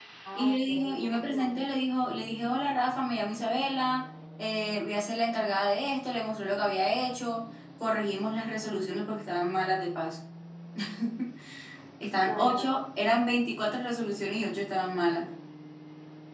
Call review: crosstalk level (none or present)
present